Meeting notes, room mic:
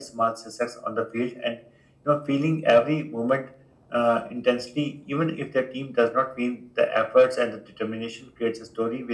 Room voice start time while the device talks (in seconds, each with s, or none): none